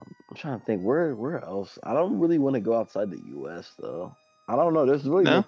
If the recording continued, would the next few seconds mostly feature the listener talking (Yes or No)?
No